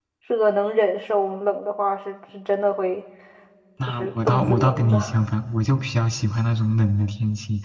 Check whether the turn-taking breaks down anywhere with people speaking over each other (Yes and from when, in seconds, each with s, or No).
Yes, from 3.8 s